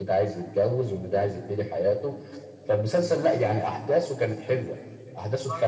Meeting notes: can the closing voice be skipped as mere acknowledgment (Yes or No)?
Yes